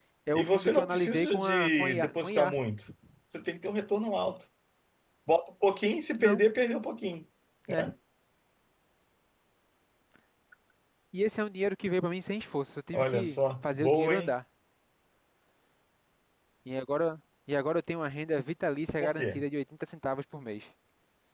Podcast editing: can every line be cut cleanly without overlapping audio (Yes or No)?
No